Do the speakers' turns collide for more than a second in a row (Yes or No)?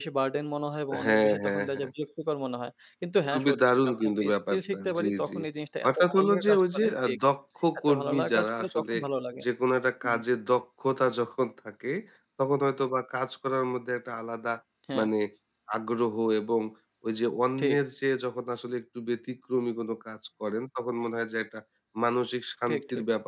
Yes